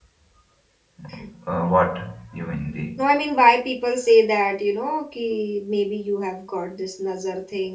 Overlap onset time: none

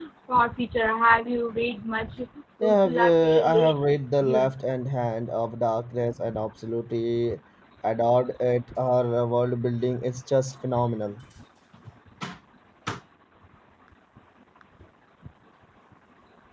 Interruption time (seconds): 3 s

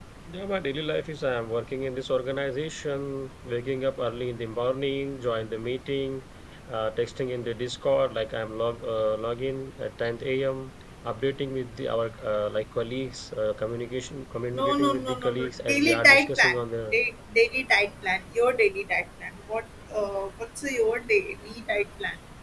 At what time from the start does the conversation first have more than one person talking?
15 s

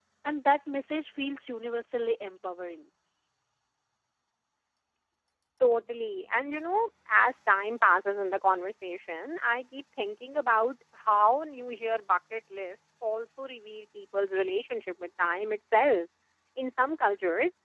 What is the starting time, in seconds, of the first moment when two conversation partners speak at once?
none

